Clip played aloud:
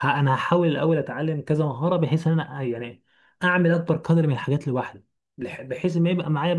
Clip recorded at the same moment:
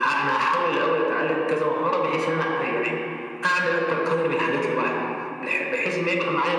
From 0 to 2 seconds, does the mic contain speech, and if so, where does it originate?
echo only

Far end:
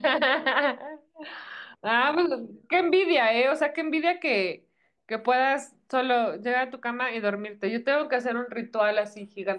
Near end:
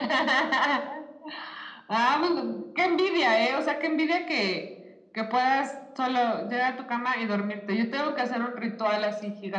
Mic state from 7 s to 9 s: echo only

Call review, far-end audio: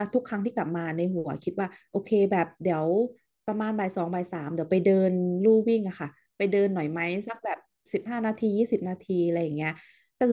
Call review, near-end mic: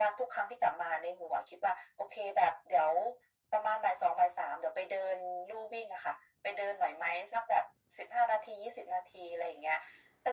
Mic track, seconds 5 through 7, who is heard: echo only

